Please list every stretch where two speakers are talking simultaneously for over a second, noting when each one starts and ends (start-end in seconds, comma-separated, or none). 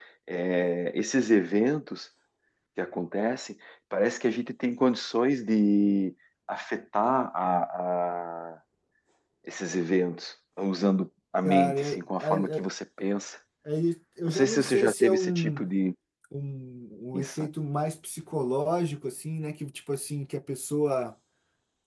11.4-12.6, 14.2-15.6